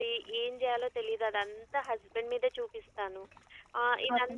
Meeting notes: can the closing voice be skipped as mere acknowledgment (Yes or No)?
Yes